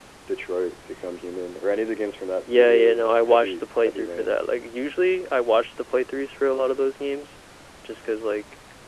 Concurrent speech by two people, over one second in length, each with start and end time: 2.5-4.4

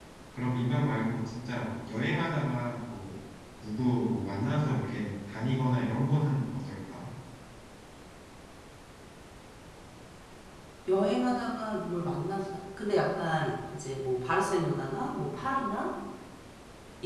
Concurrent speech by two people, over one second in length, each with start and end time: none

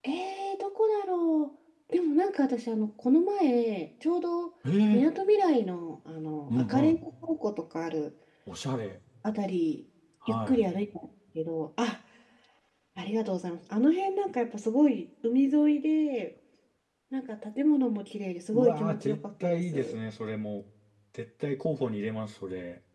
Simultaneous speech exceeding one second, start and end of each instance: 18.5-20.0

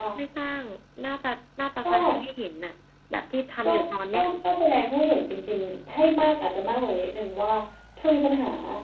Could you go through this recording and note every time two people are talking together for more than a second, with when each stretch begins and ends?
none

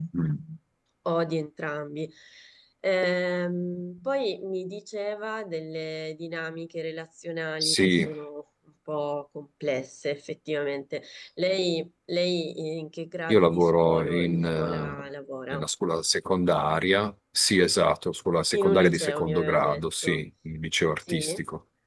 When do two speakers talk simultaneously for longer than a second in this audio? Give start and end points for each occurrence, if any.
13.3-15.1, 18.5-20.2

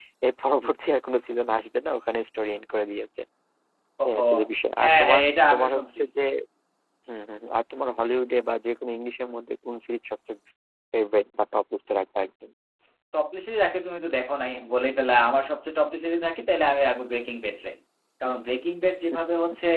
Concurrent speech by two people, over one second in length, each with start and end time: 4.8-6.0

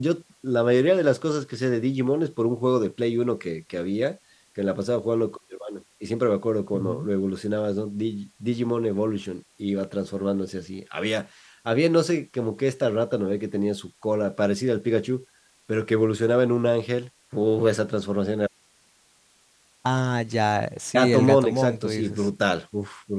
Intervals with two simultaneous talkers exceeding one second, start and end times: 20.9-22.3

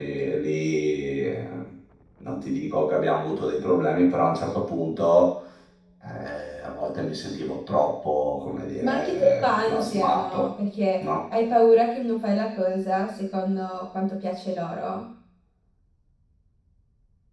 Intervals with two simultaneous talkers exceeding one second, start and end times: 8.8-10.5

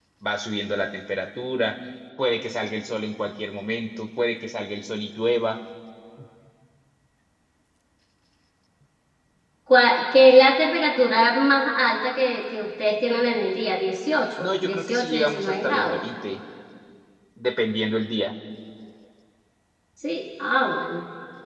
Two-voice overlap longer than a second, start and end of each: 14.4-16.0

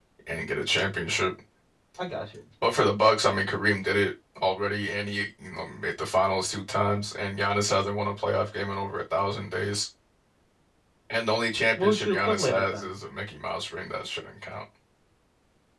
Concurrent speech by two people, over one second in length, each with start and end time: 11.8-13.0

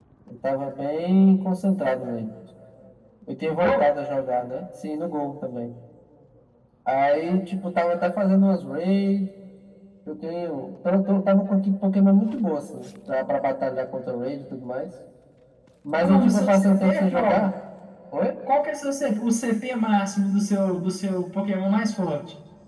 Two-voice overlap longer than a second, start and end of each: 16.0-17.5

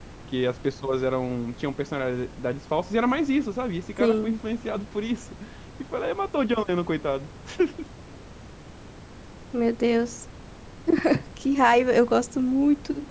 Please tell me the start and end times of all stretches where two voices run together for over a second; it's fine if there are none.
none

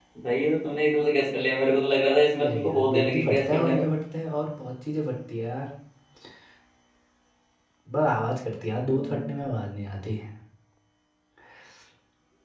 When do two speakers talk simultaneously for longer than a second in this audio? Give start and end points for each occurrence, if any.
2.4-3.9

